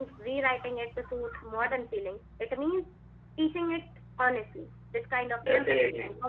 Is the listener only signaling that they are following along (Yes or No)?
Yes